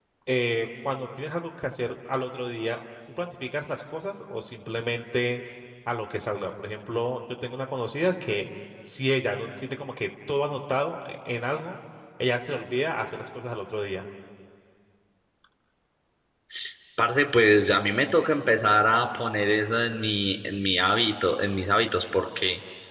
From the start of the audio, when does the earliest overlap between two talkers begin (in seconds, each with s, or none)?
none